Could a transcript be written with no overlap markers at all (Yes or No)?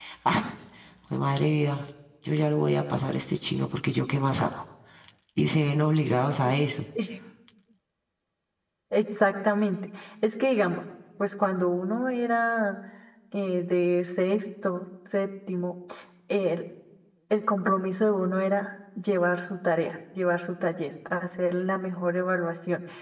Yes